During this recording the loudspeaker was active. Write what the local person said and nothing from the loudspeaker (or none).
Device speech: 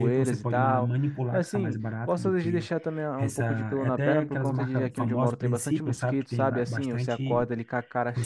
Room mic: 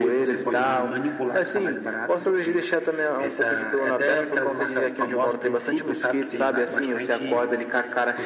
none